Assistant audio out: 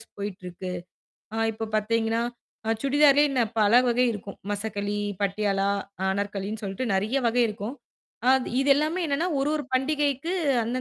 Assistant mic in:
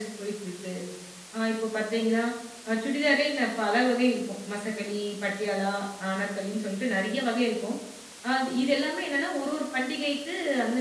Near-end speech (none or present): none